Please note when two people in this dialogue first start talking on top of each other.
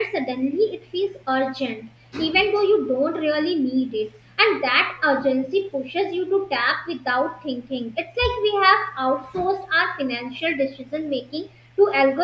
none

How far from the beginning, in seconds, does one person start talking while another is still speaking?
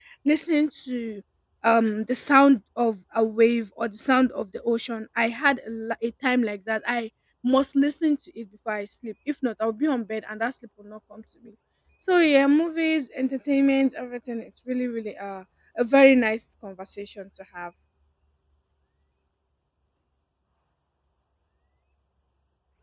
none

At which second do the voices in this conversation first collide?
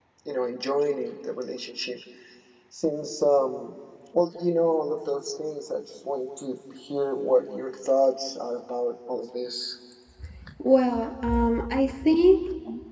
none

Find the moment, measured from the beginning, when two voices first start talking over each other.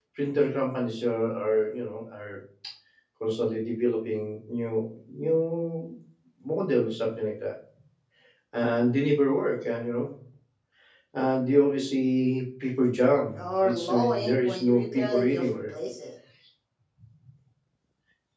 13.3 s

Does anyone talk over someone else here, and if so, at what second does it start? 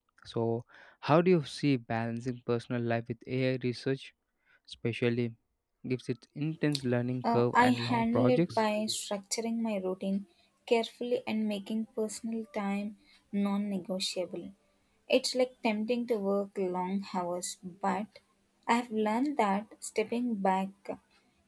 7.2 s

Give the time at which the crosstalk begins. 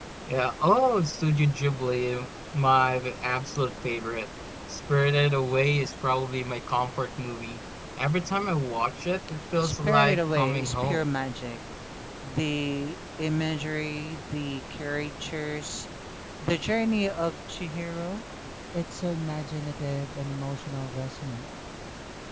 9.6 s

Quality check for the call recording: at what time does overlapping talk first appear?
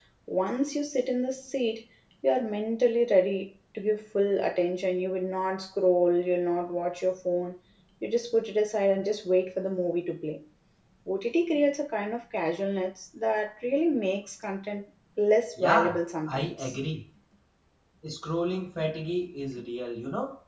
15.6 s

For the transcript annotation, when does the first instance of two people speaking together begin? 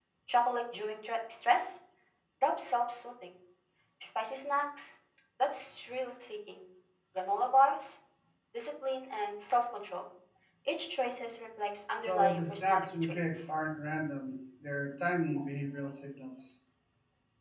12.0 s

